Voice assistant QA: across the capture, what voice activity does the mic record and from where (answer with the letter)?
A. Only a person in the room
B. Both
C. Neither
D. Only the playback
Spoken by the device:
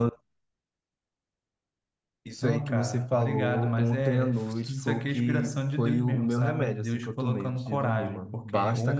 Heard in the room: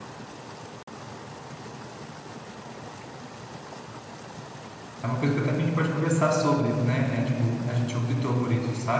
A